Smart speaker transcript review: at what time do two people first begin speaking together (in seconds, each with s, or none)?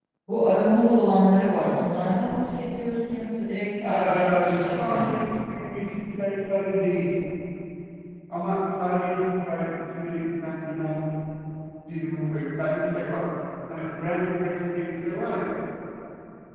3.8 s